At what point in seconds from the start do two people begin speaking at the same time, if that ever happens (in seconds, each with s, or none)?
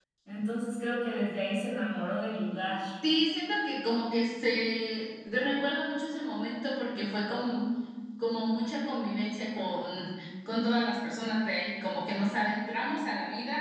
none